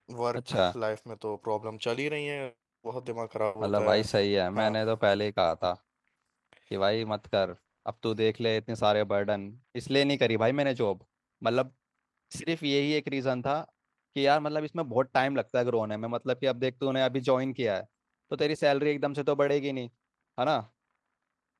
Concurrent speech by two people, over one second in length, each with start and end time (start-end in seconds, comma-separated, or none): none